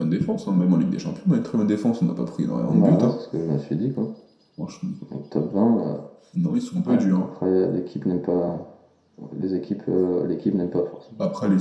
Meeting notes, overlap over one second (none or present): none